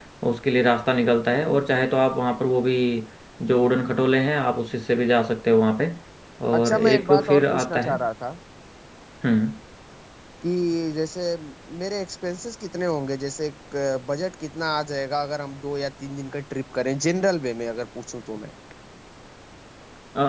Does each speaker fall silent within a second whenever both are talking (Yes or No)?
No